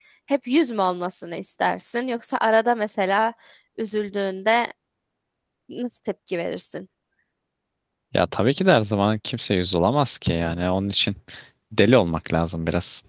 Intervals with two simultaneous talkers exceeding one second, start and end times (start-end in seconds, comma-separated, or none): none